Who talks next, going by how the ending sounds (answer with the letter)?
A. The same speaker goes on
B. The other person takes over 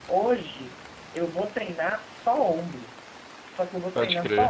A